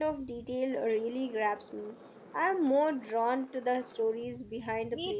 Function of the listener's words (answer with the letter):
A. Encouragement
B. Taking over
B